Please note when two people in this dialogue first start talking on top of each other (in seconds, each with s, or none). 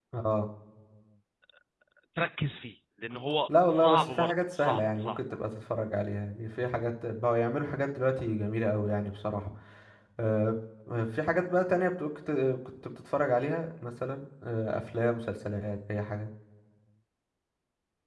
3.5 s